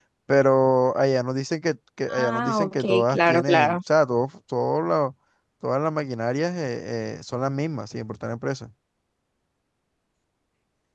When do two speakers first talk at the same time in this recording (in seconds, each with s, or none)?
2.1 s